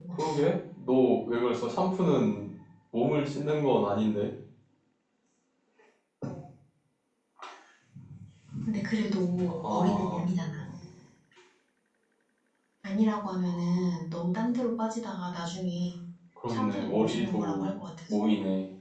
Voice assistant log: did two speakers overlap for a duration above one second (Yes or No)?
Yes